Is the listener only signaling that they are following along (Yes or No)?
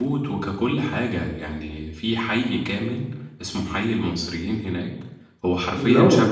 Yes